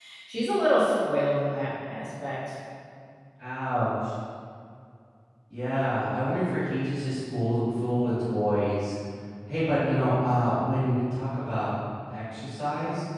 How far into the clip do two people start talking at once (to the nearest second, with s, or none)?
none